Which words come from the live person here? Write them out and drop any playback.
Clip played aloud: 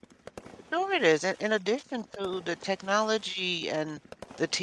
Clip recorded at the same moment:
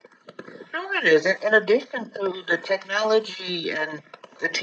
none

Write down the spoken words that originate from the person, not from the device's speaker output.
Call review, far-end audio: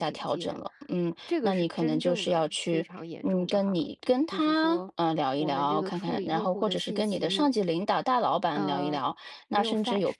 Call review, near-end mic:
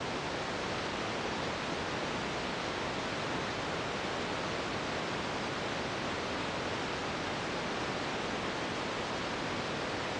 none

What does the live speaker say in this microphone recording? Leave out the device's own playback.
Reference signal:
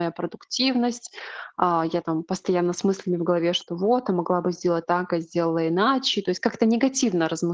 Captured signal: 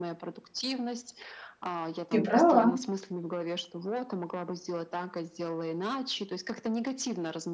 Ты права.

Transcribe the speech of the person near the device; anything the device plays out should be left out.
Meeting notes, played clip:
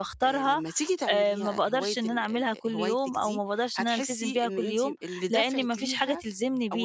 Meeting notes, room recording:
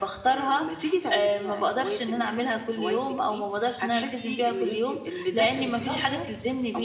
بالضبط،

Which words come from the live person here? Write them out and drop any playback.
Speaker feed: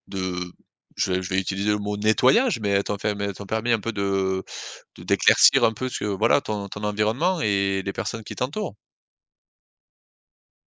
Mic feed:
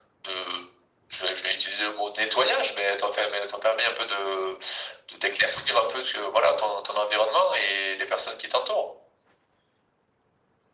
none

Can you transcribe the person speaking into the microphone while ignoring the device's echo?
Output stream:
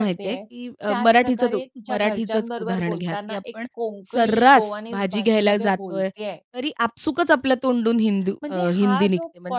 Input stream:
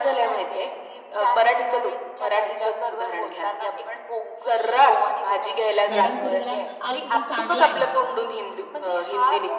मॅडम सुरू झाल्या, "अहो तुका सांगलाय ना."

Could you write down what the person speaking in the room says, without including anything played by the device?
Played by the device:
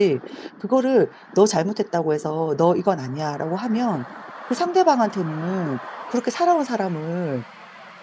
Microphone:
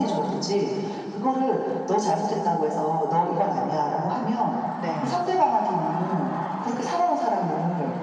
네.

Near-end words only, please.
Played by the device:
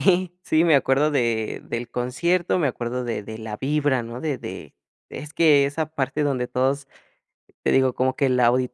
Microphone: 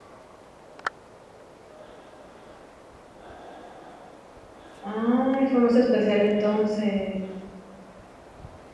Ay, fue más especial entonces.

